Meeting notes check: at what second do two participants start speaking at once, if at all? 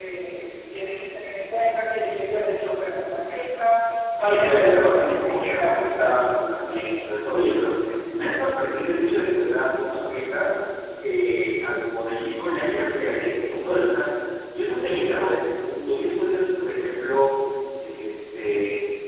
4.2 s

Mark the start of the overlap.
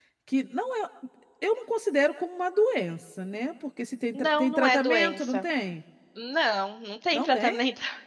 4.1 s

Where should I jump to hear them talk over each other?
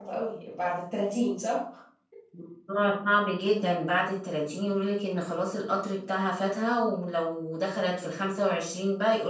none

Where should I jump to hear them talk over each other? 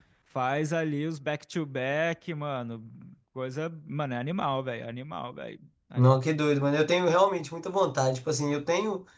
none

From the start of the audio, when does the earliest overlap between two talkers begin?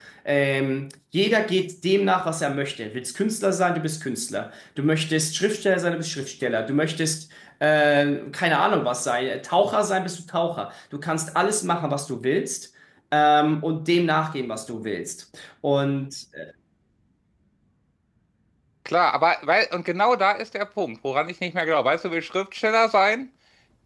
none

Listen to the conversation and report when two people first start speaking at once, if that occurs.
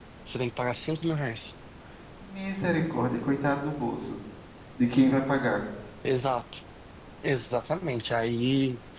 none

